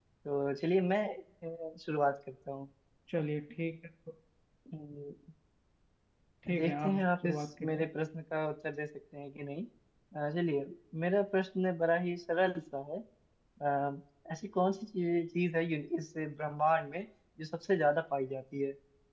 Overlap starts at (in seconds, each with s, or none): 6.6 s